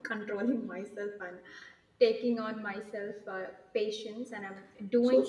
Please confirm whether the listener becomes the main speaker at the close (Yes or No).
Yes